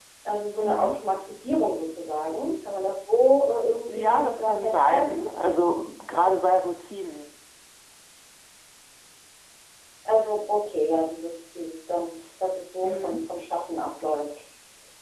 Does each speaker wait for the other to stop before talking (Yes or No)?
No